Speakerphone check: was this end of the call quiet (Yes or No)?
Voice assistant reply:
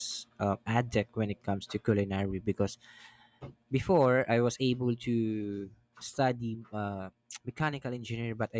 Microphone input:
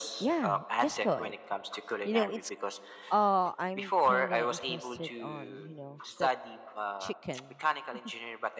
No